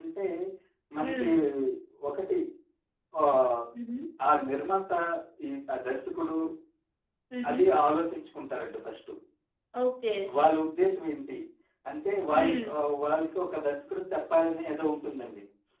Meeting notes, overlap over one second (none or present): none